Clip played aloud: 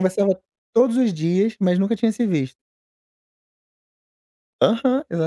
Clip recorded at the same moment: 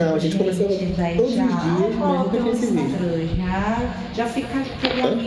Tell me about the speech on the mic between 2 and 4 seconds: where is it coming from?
both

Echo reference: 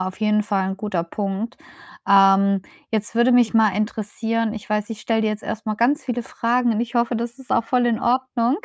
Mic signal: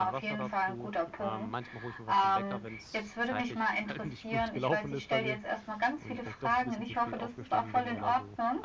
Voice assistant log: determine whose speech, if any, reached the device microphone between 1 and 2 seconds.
both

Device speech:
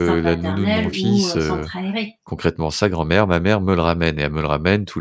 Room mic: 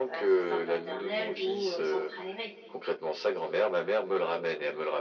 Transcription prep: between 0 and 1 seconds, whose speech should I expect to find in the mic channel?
echo only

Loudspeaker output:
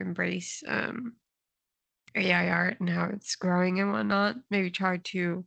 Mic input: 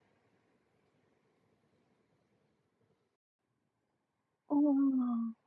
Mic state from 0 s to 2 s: neither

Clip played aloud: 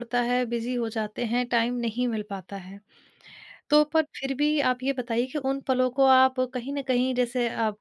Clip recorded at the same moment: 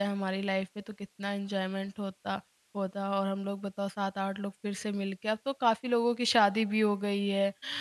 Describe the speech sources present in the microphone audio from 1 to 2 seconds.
user only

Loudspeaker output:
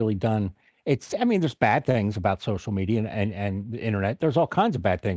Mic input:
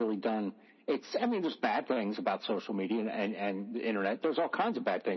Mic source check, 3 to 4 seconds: echo only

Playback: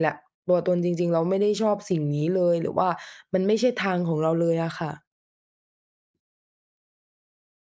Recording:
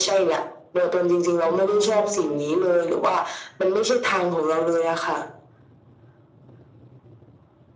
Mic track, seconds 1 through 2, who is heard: both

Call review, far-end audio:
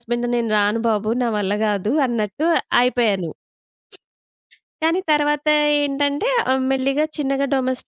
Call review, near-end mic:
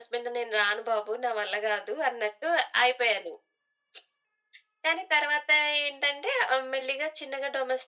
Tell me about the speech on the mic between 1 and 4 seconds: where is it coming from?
echo only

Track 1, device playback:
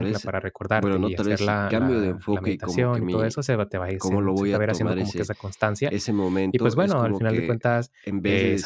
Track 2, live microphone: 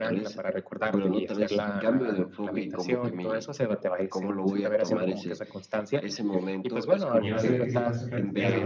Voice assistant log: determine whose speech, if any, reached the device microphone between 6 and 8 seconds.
both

